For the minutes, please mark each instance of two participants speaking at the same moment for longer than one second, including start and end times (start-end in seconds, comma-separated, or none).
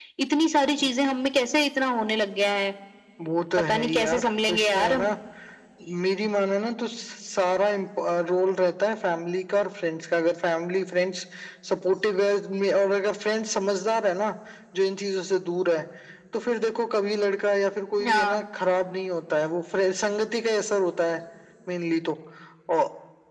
3.6-5.1